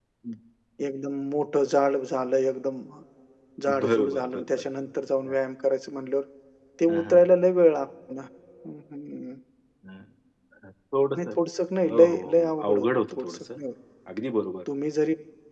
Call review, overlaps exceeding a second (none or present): present